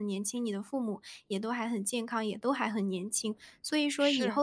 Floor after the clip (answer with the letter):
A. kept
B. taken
A